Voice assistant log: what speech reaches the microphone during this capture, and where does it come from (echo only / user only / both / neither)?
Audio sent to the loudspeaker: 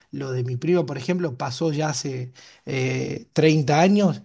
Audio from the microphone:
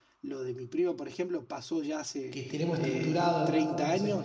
both